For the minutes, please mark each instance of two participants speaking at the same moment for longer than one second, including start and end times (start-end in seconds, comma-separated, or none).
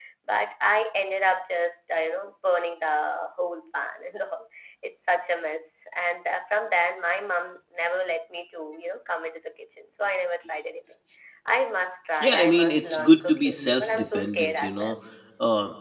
12.2-14.9